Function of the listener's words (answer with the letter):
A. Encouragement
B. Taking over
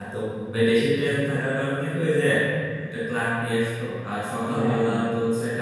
A